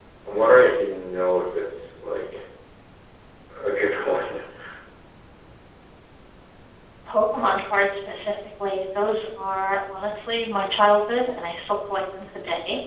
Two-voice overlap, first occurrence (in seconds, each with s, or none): none